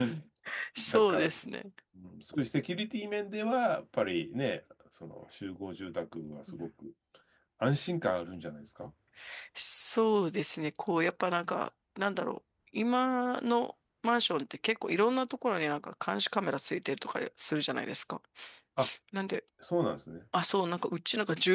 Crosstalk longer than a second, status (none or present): none